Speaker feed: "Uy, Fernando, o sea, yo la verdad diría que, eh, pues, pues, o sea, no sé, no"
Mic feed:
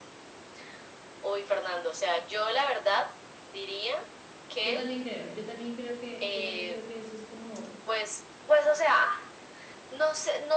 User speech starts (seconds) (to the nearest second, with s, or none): 5 s